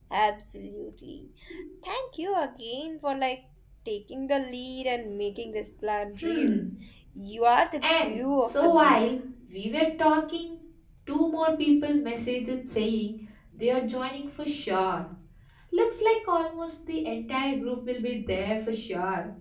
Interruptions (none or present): present